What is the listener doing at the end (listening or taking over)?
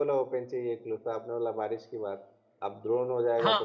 taking over